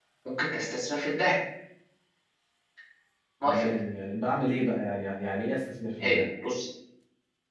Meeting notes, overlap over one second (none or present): none